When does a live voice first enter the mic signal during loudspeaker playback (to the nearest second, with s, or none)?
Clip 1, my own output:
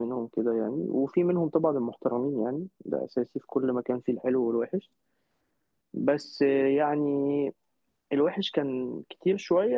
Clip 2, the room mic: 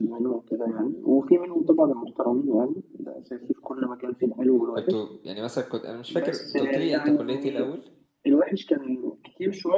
5 s